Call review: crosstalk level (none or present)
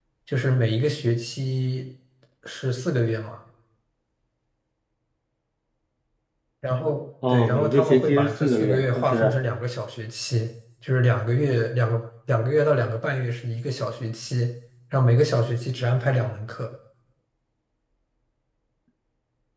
present